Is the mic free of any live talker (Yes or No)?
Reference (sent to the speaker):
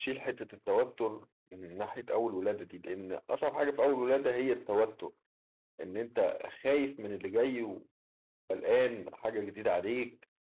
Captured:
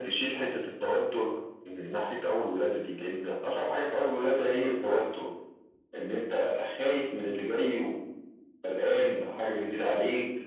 Yes